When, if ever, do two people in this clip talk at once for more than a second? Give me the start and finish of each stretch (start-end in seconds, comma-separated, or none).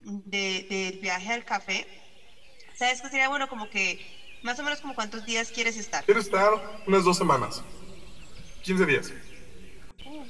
none